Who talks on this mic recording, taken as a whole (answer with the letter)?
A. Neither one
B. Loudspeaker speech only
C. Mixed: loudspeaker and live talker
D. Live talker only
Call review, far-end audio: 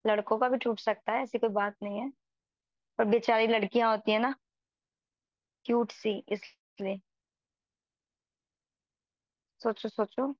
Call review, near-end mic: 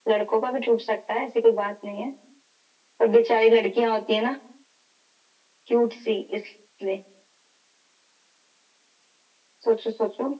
B